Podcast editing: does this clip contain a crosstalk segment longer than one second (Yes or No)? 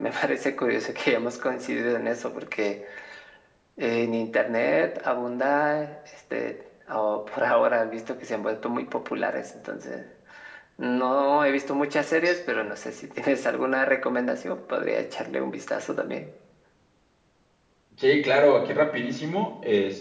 No